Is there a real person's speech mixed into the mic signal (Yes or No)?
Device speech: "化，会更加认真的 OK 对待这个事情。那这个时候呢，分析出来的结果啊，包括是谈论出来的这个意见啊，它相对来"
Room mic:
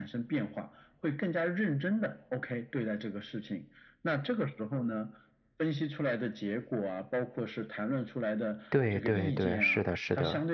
Yes